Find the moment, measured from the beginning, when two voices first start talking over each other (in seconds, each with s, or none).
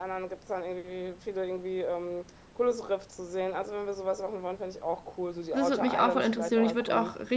5.5 s